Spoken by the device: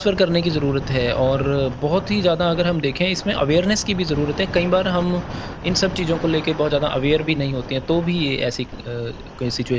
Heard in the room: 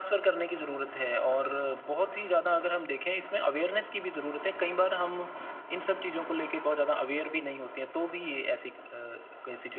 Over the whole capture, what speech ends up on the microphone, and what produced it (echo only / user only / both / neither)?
echo only